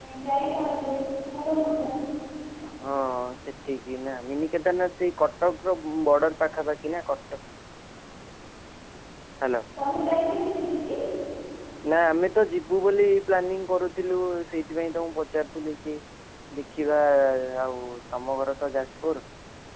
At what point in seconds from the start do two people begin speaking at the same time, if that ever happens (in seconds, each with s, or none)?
none